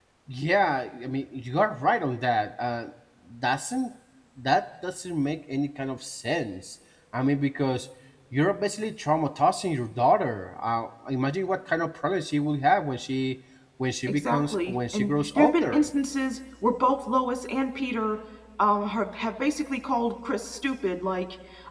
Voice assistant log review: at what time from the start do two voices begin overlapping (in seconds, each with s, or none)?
14.1 s